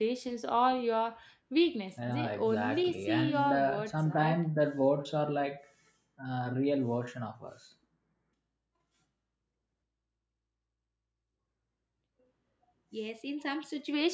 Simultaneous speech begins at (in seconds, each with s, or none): 2.0 s